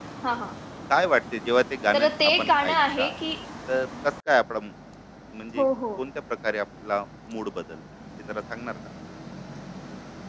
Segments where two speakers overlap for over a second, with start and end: 1.9-3.2

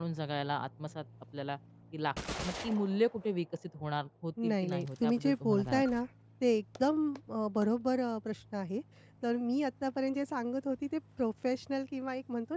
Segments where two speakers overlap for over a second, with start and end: 4.5-5.8

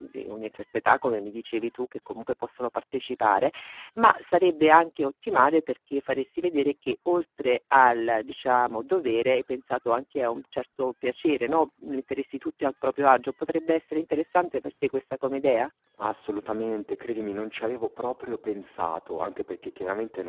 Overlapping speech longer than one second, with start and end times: none

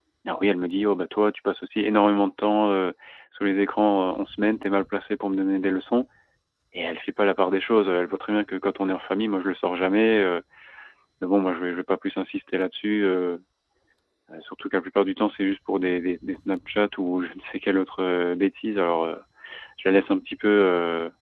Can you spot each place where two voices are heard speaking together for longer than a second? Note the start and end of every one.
none

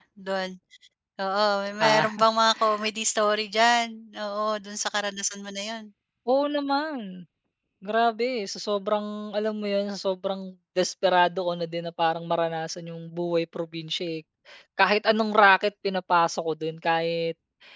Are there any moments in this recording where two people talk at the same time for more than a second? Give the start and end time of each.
none

